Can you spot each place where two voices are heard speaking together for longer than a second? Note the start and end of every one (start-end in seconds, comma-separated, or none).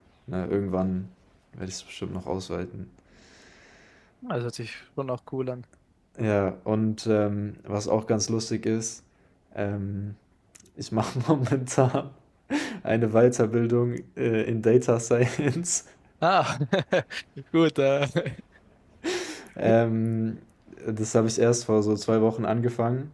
none